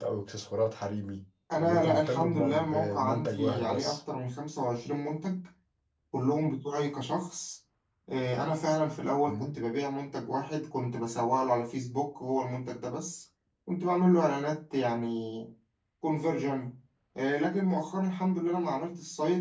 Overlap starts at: 1.6 s

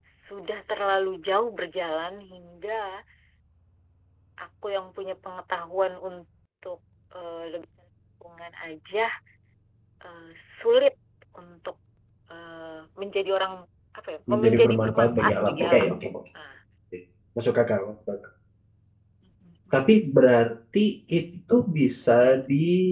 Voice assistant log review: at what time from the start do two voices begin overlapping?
14.3 s

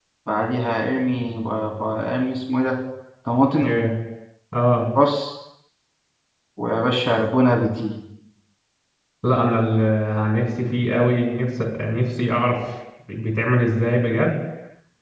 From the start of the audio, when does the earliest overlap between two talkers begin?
none

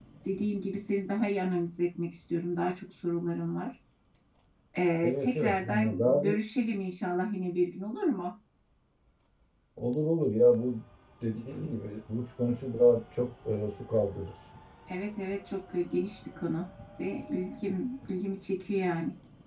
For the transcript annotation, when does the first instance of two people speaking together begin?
5.0 s

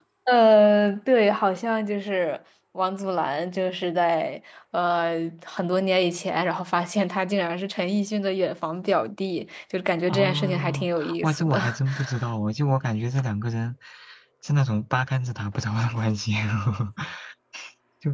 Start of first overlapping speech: 10.1 s

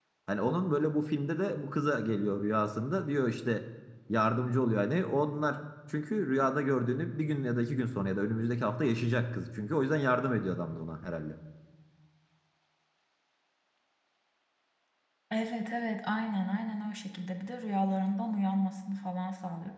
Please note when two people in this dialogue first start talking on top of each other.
none

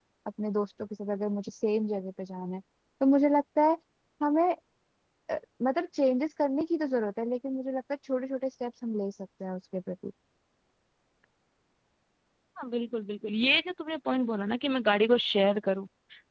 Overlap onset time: none

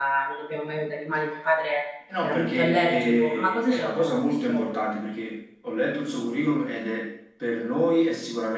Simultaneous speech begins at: 2.1 s

